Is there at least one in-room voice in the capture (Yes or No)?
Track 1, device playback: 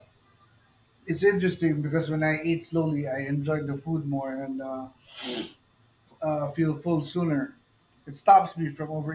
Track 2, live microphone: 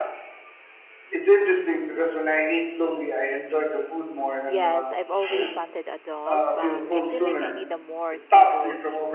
Yes